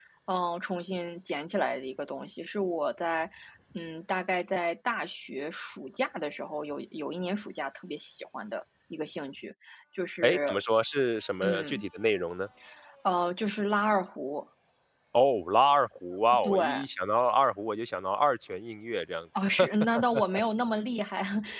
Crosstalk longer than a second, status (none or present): none